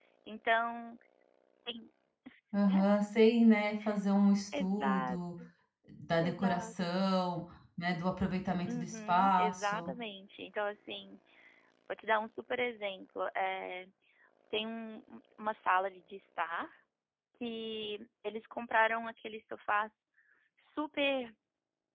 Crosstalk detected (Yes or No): Yes